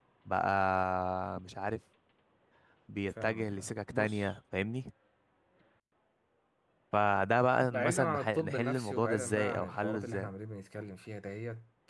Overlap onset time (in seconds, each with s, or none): 3.1 s